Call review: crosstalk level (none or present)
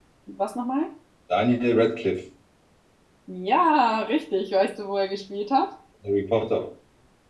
none